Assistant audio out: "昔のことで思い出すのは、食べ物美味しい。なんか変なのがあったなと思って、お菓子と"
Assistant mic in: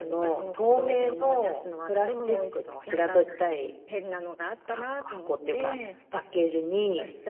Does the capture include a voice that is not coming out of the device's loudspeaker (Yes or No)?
Yes